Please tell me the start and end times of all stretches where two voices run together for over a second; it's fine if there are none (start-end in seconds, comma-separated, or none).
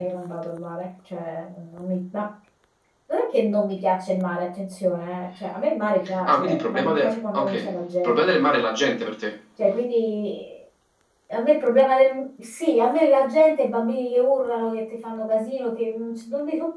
6.2-8.4